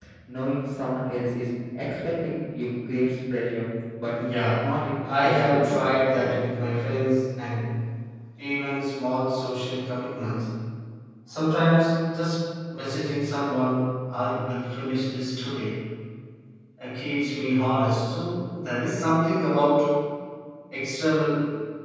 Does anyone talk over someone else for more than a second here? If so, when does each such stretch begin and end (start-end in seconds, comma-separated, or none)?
5.1-6.3